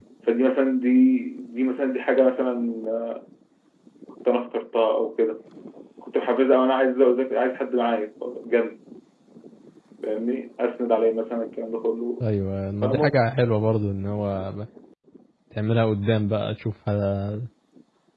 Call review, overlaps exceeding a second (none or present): none